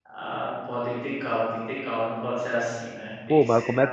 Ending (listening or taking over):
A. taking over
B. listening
A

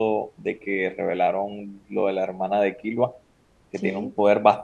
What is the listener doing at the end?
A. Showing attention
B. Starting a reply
A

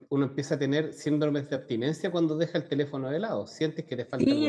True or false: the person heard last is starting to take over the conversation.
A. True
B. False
A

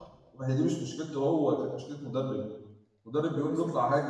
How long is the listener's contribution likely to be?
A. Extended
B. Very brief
B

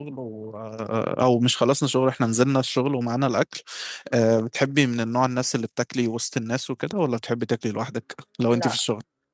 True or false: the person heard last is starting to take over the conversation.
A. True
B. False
A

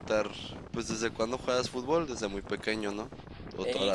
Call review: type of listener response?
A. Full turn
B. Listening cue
A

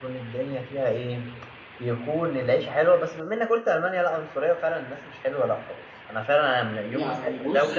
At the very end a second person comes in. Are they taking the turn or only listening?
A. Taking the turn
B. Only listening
A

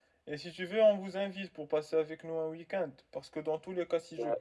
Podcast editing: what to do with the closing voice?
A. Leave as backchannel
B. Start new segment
A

